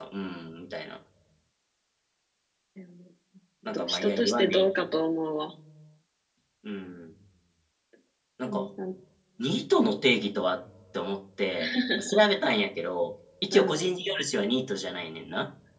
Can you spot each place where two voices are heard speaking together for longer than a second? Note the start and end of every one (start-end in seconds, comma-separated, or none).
3.7-4.9